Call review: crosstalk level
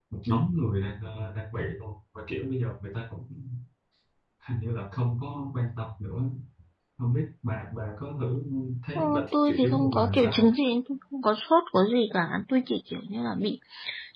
present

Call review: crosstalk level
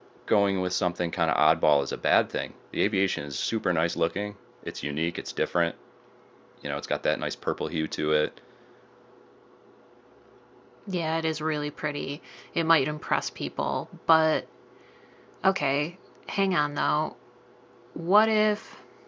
none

